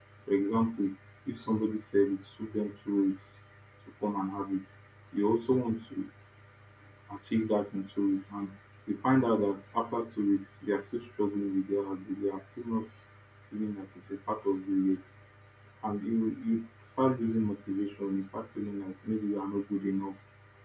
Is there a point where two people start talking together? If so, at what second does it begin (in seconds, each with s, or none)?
none